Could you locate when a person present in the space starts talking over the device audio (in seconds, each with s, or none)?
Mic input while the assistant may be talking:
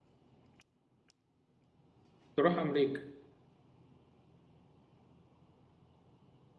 2.4 s